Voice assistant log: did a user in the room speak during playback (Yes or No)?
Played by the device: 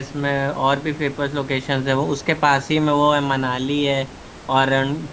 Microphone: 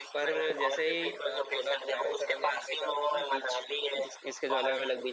Yes